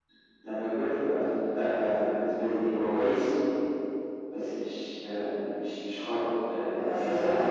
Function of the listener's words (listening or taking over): taking over